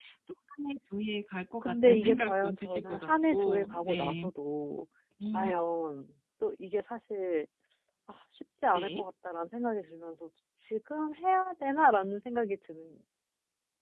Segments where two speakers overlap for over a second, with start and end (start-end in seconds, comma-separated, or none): 1.6-4.3